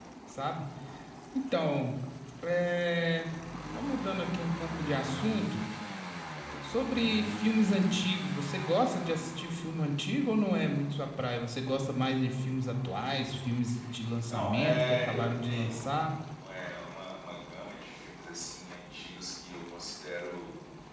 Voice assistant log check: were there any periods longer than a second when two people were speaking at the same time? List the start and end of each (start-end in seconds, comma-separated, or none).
14.3-16.1